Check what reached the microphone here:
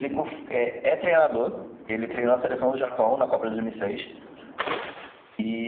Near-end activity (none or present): none